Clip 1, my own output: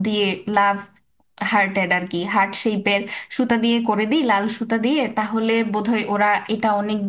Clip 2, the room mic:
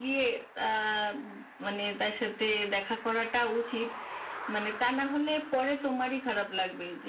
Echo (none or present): none